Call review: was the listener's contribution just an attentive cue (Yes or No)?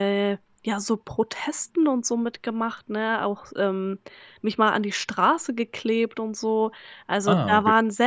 Yes